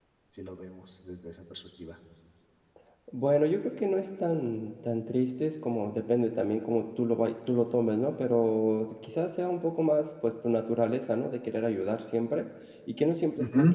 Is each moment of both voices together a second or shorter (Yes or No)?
Yes